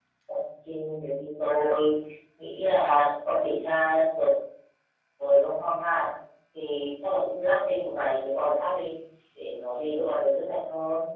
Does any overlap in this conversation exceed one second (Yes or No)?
No